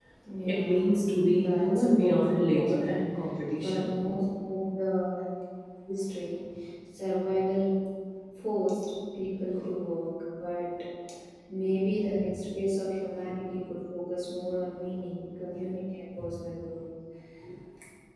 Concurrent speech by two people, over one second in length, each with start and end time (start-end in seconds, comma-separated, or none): 1.3-2.9